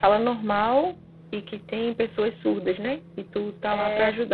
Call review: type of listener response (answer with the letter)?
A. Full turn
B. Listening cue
A